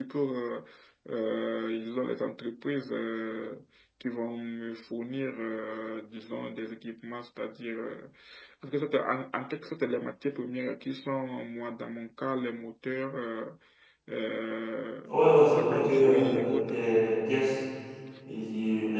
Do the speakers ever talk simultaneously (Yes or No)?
Yes